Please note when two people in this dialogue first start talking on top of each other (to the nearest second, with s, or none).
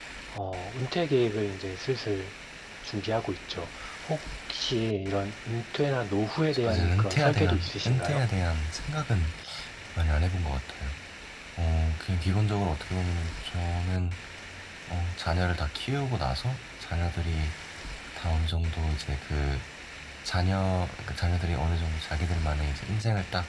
7 s